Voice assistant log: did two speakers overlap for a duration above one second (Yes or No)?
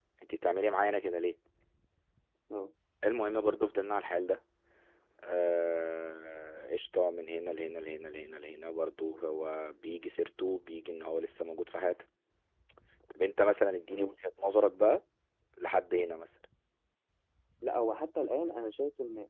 No